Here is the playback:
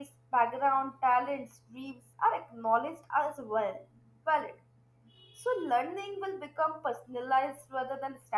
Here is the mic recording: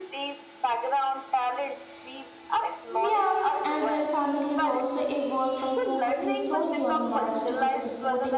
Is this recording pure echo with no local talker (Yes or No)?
No